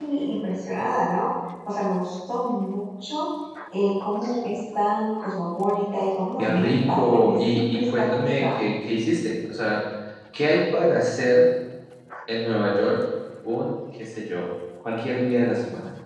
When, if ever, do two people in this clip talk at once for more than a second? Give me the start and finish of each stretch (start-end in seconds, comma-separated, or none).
6.4-8.5